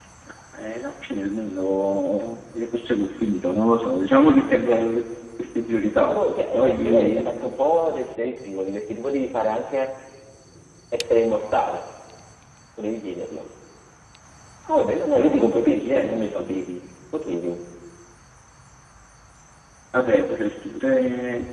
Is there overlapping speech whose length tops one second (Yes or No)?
Yes